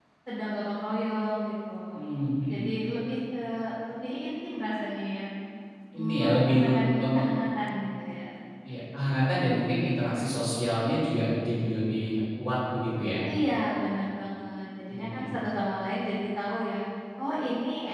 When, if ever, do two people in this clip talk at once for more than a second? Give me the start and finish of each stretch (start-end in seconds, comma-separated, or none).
6.0-7.2